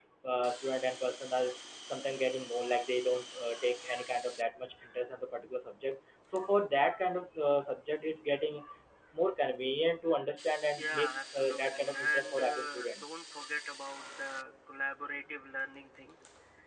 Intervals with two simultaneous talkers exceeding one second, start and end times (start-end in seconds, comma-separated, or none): 10.8-13.0